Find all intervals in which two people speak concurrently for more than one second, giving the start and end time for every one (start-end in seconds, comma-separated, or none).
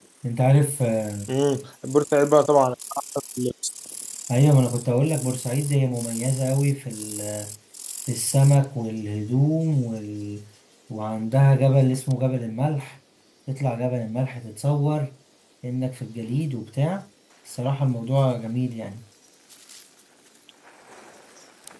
none